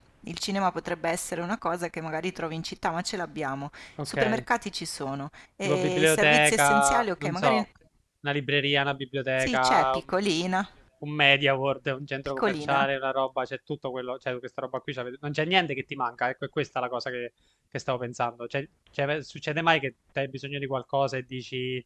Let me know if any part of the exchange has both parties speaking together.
Yes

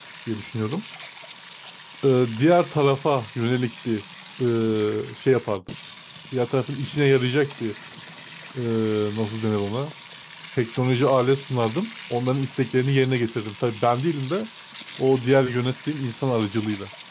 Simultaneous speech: No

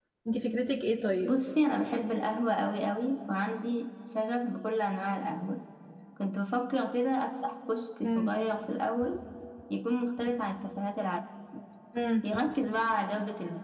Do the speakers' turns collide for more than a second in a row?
No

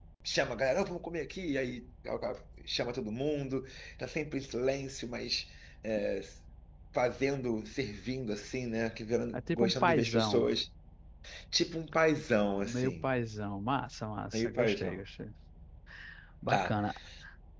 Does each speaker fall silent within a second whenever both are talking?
No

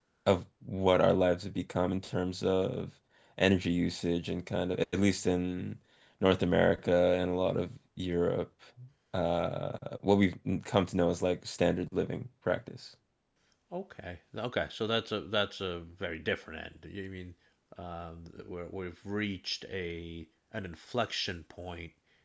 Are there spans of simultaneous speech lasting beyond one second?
No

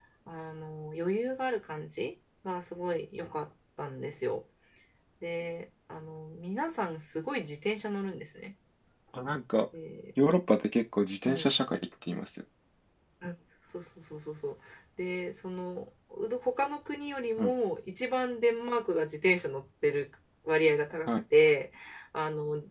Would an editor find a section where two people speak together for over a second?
No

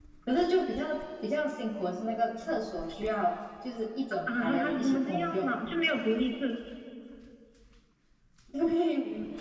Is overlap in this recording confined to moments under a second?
No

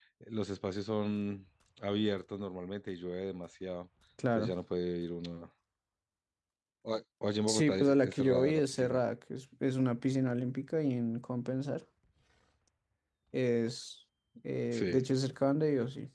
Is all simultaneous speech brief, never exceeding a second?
No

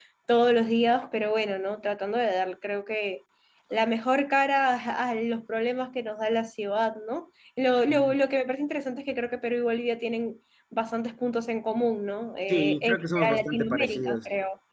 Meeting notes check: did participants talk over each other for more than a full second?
Yes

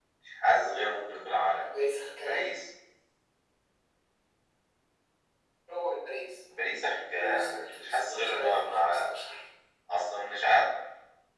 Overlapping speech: Yes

